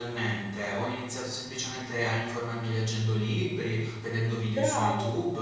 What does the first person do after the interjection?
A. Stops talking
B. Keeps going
B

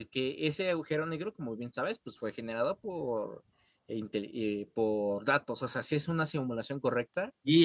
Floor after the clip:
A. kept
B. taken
B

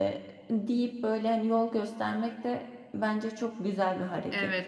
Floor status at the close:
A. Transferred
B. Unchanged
A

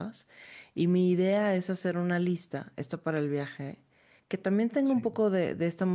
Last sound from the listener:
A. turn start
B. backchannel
B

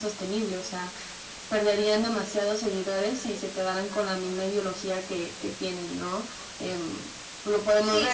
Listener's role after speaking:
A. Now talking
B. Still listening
A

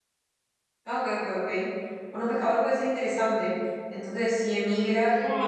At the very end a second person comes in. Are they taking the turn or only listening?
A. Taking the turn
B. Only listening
B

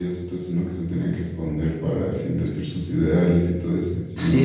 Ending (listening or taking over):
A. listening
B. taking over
B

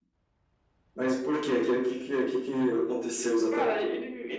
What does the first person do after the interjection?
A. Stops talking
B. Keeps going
A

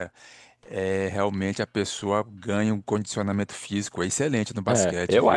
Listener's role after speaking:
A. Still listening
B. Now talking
B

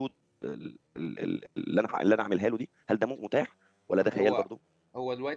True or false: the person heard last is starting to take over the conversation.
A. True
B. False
A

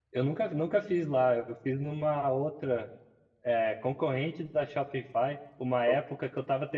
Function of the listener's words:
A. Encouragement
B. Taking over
A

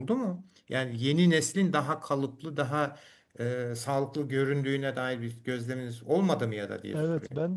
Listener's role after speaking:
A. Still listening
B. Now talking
B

